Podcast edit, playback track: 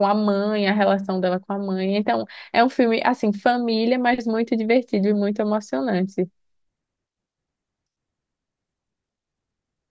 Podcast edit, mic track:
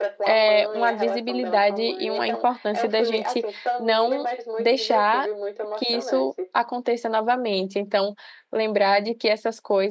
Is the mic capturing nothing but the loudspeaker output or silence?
No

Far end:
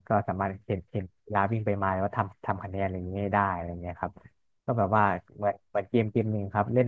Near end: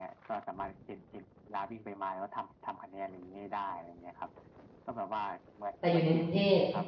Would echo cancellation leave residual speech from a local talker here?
Yes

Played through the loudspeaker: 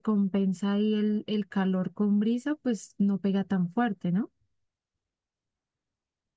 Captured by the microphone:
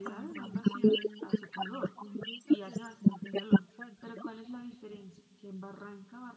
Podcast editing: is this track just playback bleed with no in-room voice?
No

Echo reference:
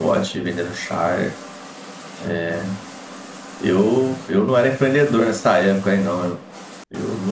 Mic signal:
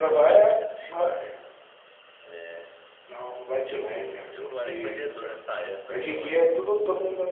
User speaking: Yes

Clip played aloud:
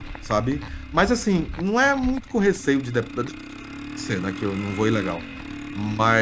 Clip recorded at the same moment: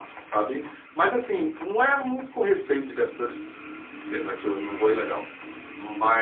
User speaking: No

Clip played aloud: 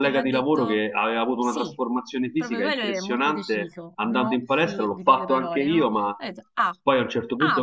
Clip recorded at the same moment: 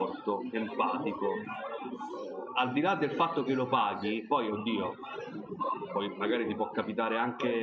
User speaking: Yes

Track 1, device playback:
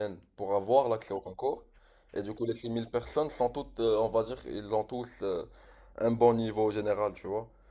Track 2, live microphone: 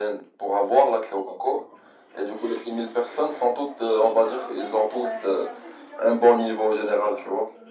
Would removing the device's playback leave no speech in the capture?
No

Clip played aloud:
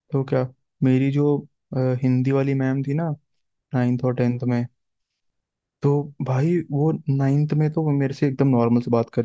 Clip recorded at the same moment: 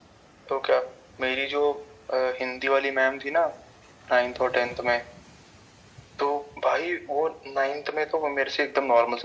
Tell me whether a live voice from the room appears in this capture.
No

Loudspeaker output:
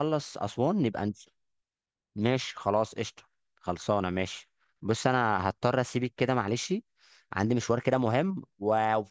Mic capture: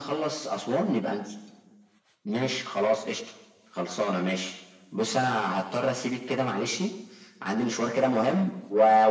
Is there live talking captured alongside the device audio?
No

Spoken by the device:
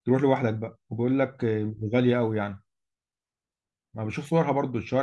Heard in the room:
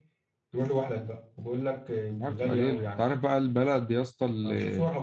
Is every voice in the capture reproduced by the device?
No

